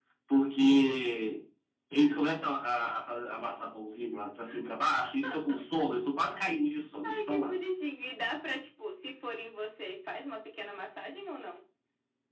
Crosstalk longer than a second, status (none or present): none